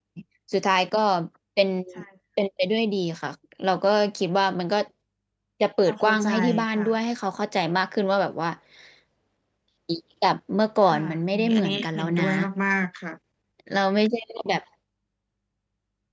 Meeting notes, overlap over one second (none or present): present